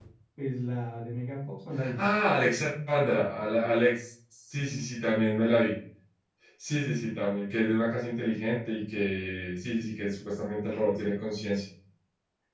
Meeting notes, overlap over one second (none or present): none